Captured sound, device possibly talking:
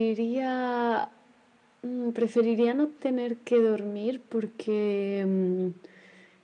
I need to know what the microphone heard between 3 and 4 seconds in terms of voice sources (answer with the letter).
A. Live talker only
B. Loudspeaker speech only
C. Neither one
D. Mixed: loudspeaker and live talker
B